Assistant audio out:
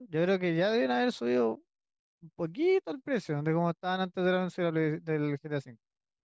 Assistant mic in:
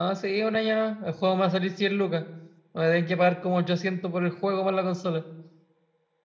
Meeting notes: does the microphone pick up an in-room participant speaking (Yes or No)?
Yes